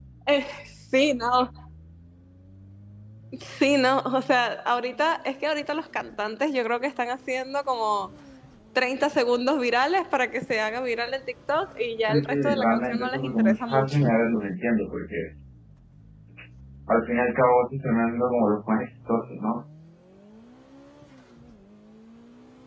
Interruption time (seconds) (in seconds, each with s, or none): 12.1 s